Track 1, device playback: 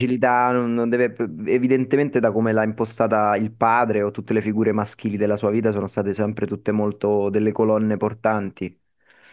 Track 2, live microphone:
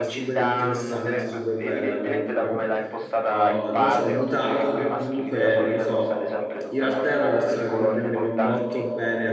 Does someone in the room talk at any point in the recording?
Yes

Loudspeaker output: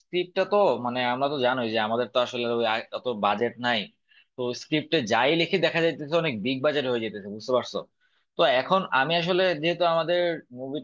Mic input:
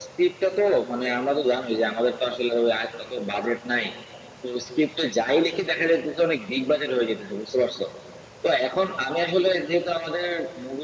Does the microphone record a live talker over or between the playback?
No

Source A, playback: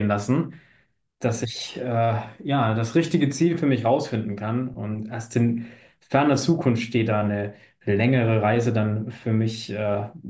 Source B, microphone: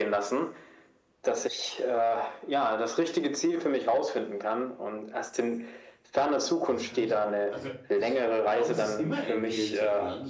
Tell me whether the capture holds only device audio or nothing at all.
No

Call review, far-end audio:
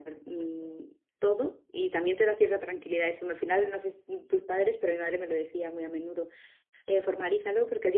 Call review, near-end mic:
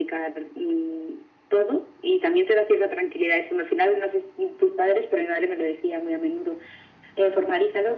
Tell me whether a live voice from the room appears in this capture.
No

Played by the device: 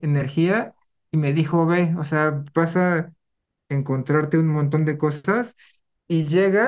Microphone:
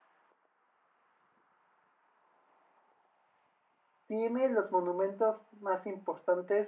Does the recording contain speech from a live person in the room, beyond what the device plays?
Yes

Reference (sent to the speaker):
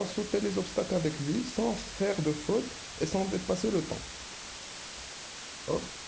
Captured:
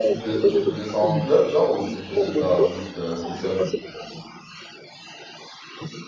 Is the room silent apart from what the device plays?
No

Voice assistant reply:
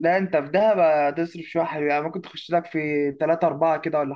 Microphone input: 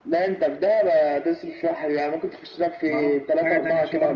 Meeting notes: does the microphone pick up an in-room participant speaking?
Yes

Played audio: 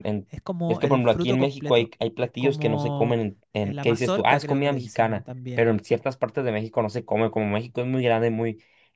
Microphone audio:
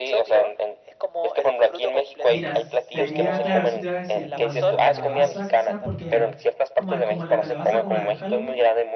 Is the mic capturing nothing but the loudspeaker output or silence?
No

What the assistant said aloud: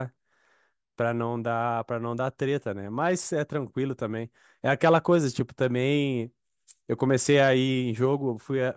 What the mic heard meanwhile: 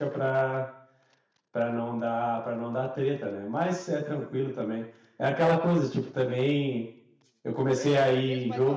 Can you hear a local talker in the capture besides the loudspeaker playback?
Yes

